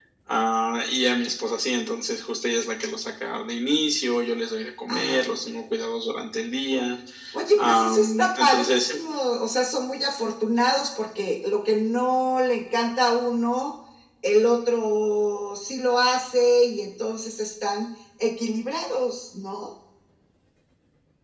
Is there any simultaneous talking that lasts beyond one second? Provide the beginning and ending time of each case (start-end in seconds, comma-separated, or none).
7.6-9.0